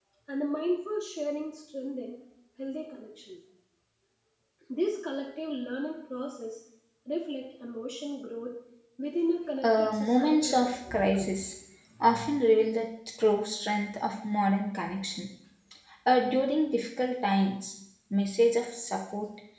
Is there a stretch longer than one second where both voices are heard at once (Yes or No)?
Yes